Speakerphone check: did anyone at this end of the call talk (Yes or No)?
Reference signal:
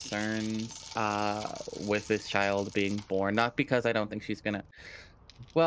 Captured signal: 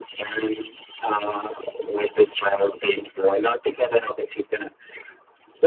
No